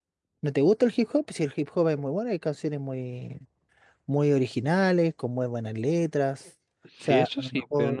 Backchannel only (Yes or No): No